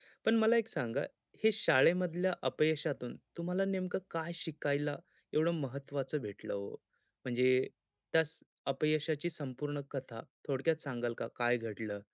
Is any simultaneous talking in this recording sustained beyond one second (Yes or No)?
No